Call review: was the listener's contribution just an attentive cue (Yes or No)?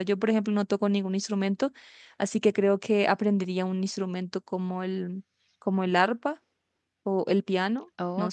No